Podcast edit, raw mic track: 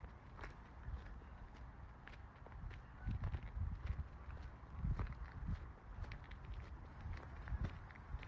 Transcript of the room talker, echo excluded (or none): none